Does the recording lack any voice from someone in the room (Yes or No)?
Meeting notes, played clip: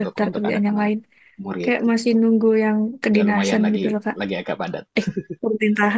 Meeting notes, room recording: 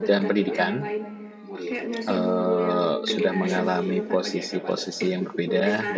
No